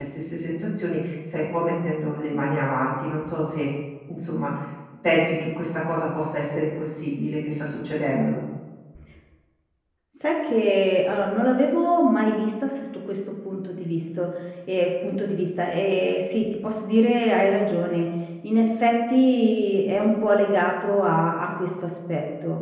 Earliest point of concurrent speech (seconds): none

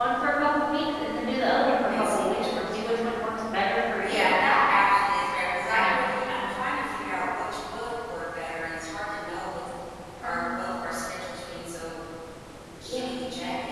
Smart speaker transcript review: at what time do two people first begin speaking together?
1.9 s

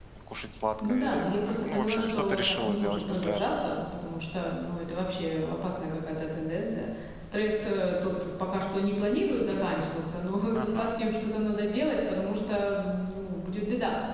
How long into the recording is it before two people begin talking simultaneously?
0.8 s

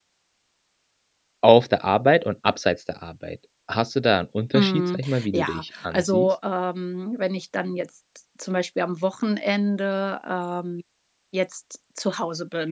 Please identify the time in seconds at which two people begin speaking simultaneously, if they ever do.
4.5 s

